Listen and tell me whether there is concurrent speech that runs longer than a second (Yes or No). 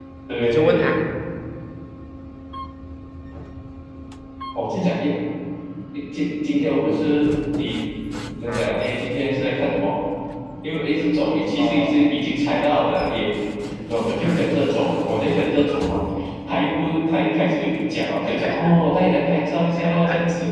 No